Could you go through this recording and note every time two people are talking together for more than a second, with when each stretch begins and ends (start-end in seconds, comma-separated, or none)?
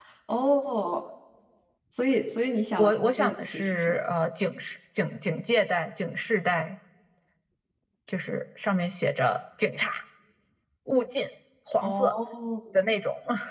2.8-4.0